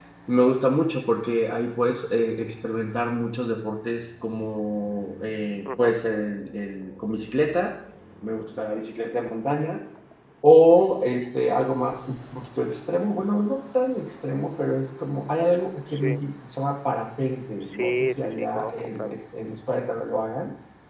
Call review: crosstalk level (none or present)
present